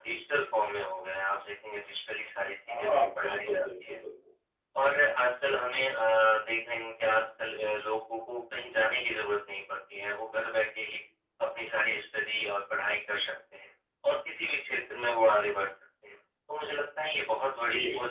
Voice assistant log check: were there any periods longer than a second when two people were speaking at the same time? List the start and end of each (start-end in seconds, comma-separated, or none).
2.7-4.0